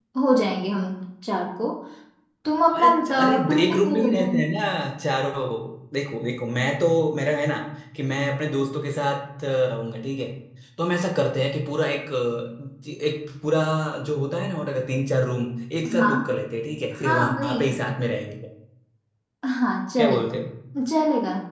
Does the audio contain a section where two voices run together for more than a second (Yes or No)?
Yes